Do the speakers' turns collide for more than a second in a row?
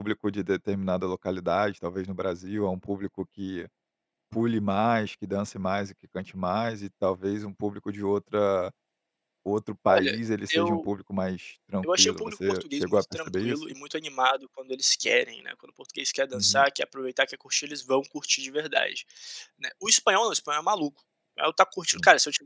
Yes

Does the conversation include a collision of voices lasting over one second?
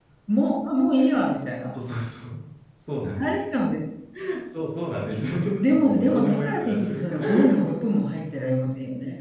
Yes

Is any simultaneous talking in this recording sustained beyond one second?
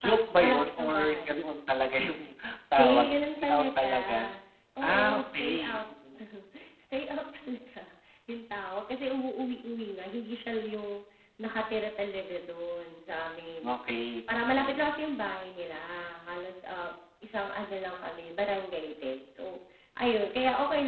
Yes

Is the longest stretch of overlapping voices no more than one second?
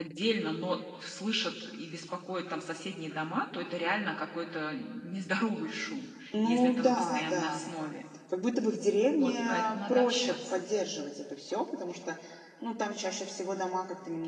No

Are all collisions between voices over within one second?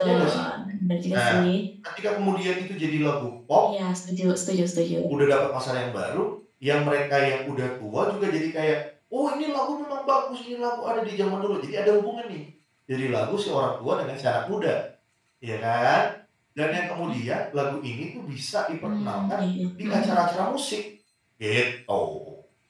Yes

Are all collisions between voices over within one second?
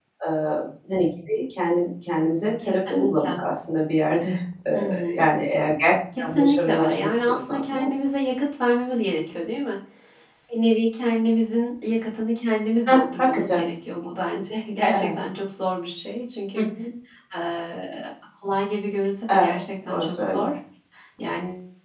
No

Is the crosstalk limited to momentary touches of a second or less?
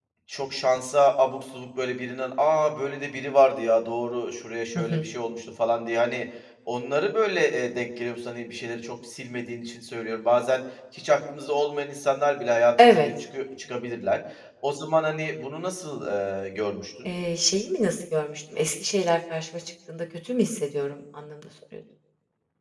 Yes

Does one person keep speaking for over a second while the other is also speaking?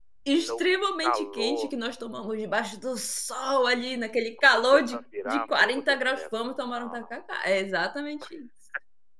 Yes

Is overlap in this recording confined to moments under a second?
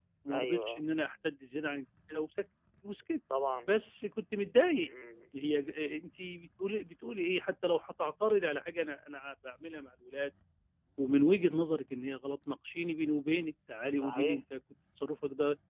Yes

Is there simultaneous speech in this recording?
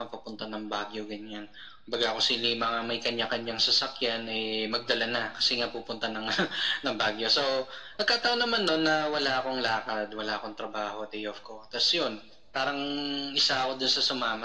No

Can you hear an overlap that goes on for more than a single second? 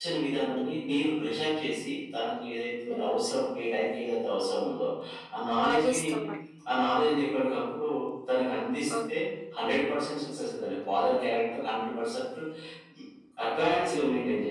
No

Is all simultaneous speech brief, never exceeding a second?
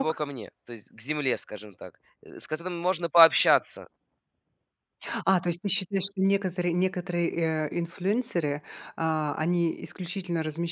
Yes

